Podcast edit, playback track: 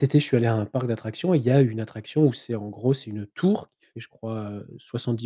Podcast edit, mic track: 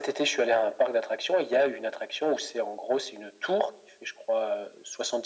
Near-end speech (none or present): none